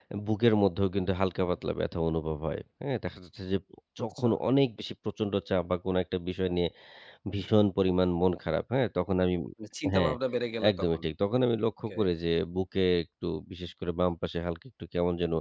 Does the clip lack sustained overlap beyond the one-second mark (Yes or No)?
Yes